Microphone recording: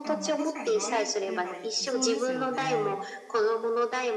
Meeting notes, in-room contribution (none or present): present